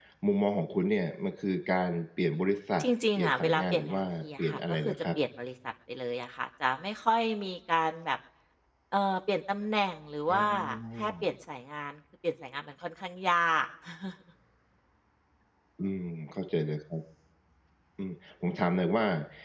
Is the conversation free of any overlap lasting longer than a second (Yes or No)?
No